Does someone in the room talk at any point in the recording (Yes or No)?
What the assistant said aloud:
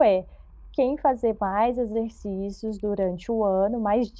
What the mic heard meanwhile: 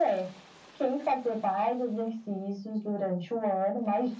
No